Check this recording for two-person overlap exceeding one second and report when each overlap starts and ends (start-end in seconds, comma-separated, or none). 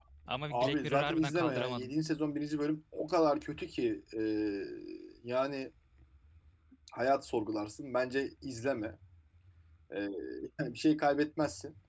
0.5-1.9